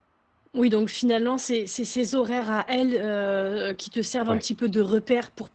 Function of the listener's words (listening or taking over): listening